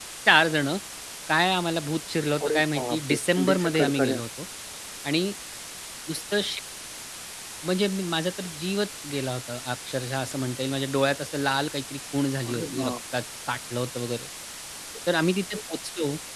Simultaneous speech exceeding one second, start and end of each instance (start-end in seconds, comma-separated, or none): 2.4-4.2